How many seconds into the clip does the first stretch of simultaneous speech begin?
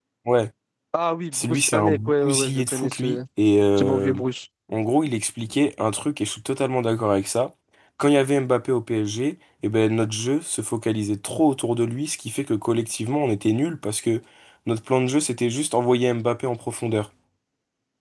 1.3 s

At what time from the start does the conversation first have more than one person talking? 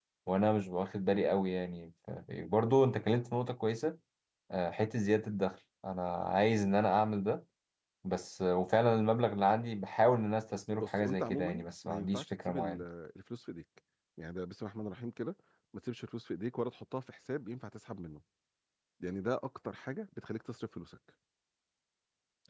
10.8 s

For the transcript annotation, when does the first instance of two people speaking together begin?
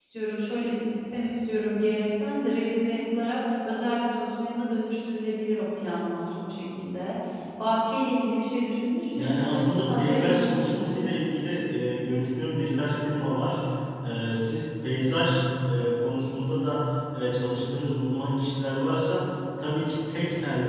9.2 s

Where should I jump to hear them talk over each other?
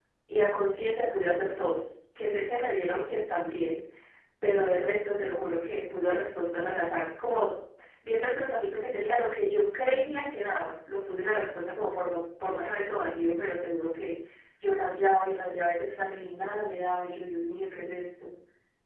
none

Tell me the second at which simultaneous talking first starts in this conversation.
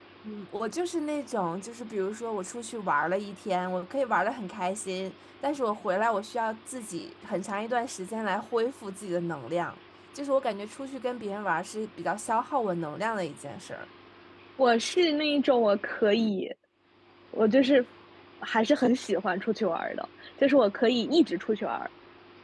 none

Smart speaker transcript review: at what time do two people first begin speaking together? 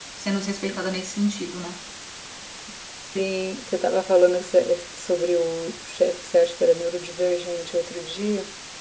none

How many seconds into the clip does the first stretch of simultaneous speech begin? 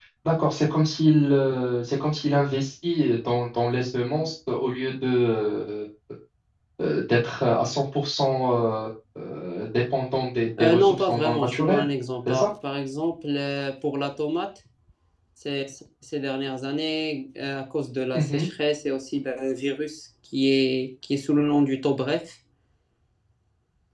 10.6 s

